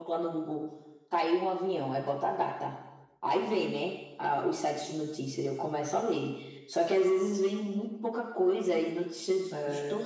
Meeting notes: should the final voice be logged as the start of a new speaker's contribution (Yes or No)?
No